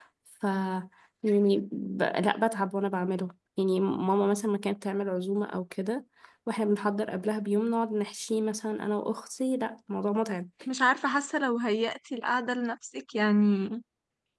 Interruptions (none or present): none